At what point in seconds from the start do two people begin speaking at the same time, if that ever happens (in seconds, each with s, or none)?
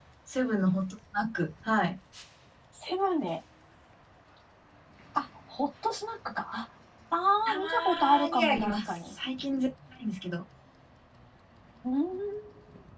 7.5 s